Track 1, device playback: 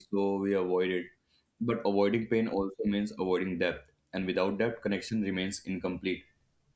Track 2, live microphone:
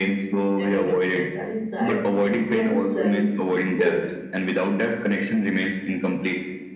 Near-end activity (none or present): present